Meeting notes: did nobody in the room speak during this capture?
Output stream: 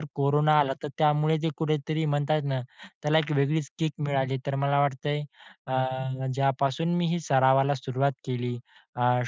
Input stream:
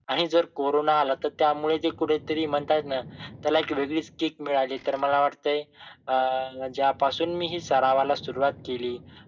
Yes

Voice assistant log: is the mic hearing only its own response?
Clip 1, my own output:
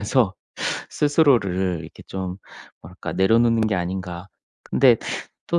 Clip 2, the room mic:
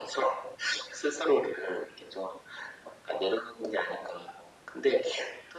Yes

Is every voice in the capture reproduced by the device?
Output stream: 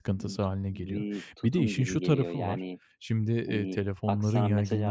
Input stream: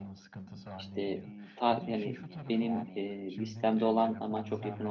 No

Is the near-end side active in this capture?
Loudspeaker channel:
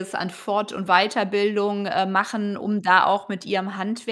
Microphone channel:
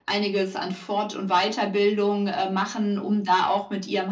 No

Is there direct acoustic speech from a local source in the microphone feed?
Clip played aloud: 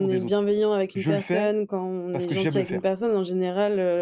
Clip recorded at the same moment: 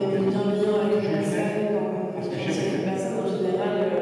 No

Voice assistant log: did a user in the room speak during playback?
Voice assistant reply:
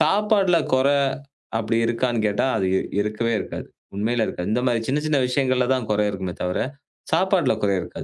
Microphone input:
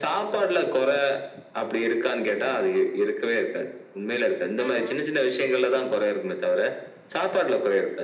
Yes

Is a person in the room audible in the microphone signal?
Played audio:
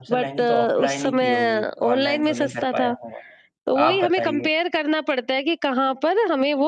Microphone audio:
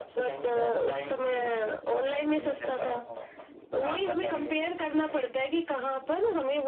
No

